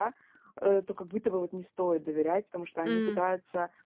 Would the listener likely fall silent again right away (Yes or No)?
Yes